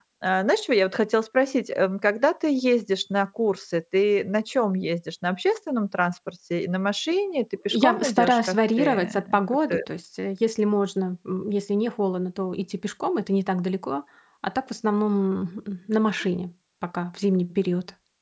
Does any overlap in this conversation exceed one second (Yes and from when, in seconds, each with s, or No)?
Yes, from 7.7 s